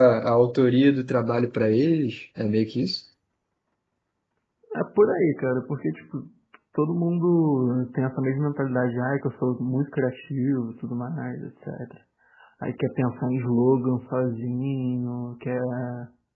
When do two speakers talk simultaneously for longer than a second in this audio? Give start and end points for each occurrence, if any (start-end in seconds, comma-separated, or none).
none